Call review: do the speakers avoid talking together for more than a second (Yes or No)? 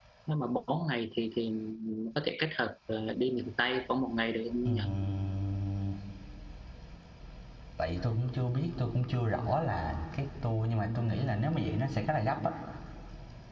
Yes